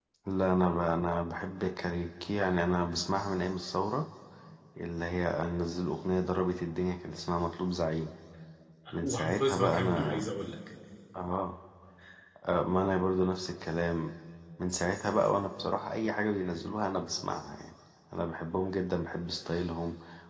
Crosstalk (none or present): present